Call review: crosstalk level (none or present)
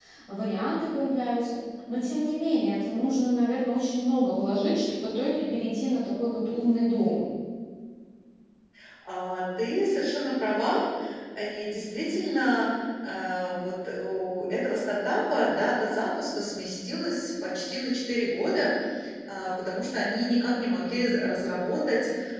none